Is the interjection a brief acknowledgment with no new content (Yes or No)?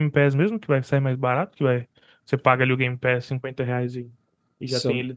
Yes